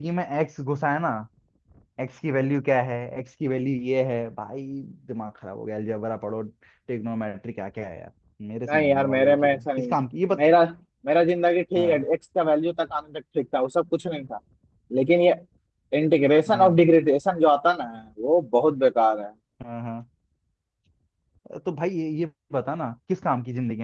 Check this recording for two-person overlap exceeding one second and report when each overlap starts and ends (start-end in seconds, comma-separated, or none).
8.7-9.9